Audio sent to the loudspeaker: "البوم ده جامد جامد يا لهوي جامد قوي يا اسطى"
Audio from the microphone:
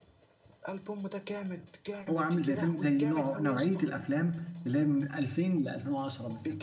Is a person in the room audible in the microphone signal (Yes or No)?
Yes